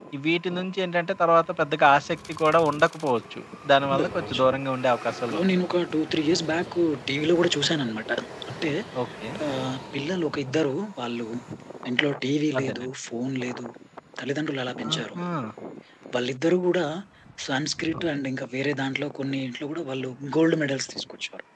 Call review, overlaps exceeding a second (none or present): none